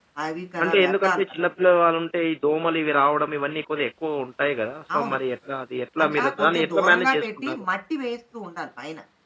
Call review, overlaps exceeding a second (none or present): present